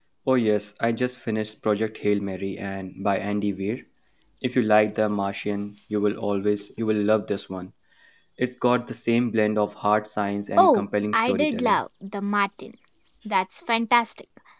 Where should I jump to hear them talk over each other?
10.6 s

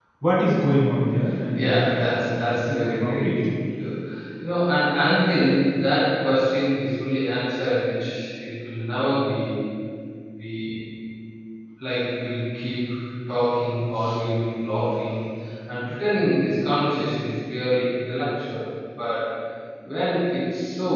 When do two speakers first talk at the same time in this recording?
1.6 s

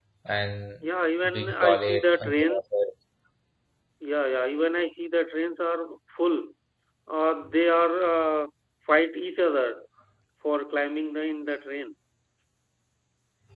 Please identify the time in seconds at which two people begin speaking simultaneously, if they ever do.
1.3 s

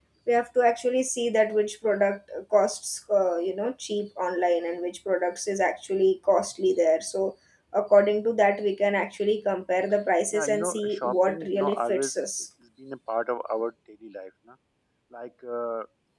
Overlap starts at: 10.3 s

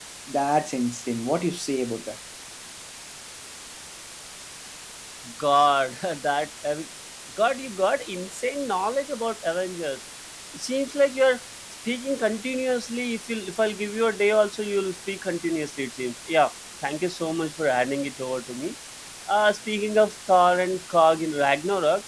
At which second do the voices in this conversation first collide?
none

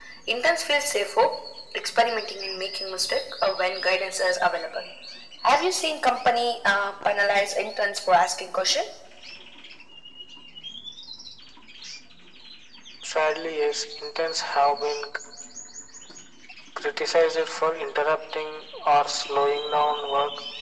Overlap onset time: none

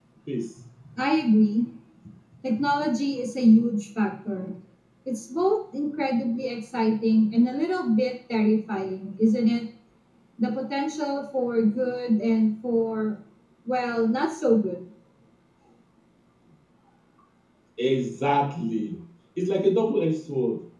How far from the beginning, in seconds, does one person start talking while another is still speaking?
none

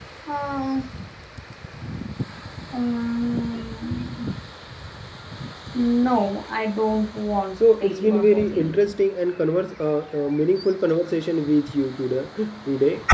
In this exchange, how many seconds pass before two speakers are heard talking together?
7.6 s

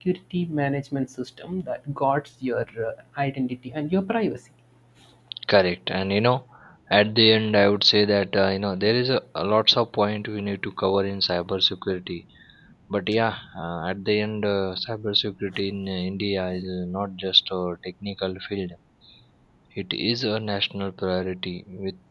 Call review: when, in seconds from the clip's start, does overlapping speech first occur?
none

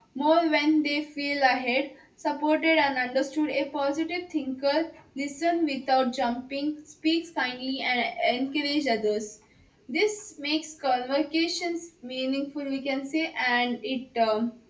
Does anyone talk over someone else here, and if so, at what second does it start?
none

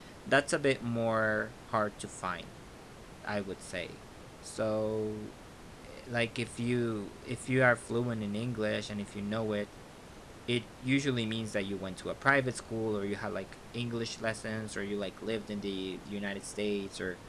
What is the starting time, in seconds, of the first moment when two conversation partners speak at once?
none

